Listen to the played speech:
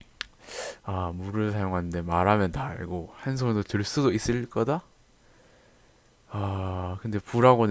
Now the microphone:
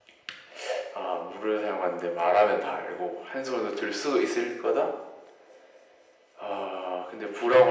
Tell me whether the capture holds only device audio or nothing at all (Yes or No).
Yes